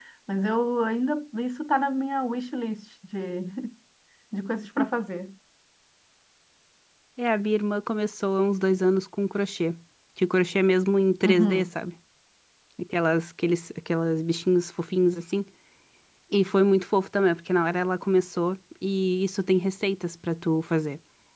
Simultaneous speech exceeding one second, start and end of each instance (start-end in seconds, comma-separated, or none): none